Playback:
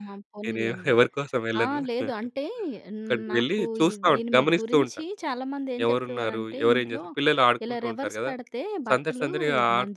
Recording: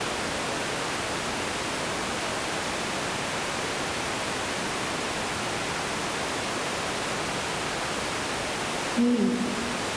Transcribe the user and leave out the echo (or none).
హ్మ్.